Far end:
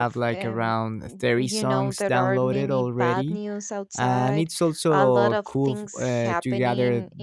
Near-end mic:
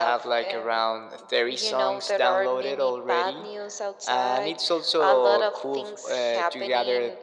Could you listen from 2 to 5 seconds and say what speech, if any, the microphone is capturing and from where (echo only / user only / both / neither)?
echo only